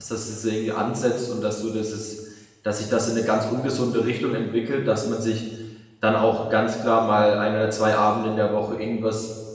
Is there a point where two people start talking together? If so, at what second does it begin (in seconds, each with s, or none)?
none